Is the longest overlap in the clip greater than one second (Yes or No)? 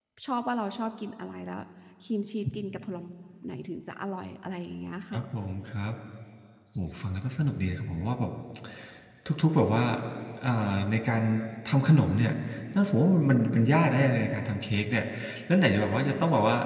No